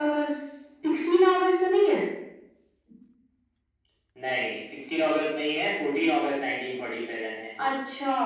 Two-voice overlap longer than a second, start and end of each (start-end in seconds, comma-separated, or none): none